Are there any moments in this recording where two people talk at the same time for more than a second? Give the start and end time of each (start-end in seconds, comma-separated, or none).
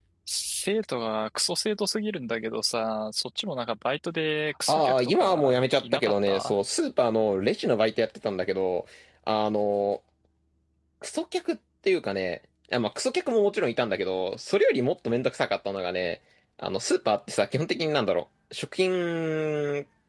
4.7-6.5